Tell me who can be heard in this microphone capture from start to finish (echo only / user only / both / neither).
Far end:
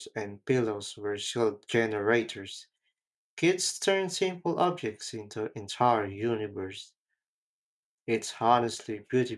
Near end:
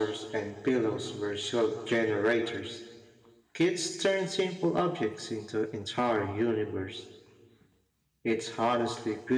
echo only